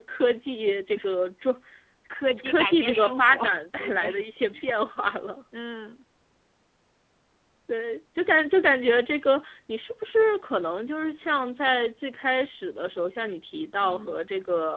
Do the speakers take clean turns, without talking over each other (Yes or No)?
No